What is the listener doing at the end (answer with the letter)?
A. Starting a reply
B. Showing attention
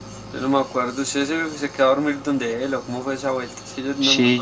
A